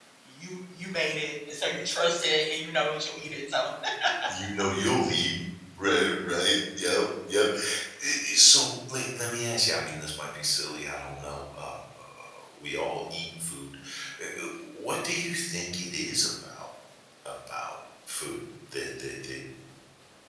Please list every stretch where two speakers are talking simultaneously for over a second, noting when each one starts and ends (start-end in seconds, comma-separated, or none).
none